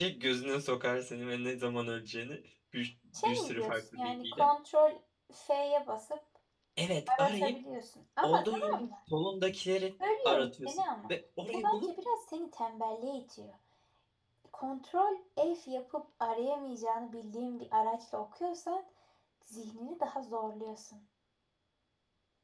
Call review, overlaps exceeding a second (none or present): present